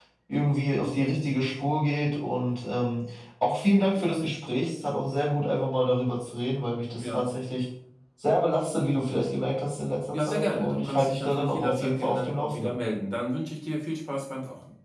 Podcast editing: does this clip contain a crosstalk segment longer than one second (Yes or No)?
Yes